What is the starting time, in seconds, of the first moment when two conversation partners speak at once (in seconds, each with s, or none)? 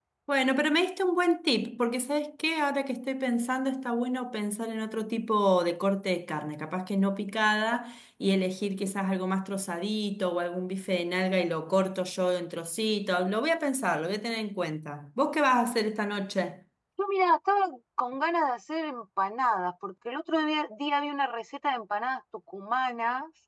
none